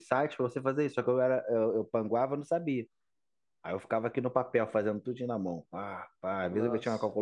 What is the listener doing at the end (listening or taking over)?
listening